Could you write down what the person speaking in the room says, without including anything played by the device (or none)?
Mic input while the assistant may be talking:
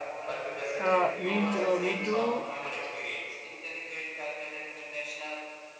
Uh, me, t- uh, me too.